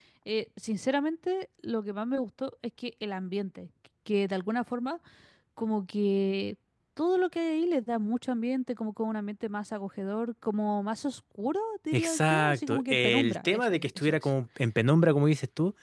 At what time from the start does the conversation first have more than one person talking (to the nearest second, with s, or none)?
12 s